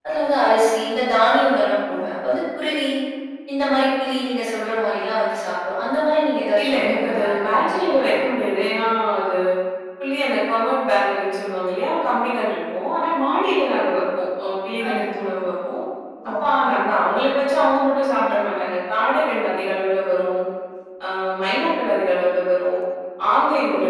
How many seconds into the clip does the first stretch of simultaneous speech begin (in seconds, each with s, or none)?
6.6 s